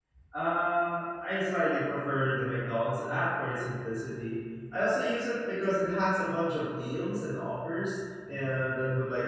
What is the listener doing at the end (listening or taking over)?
listening